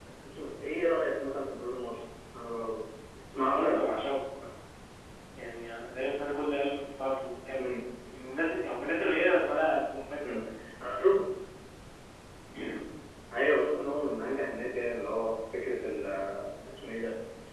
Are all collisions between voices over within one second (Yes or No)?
Yes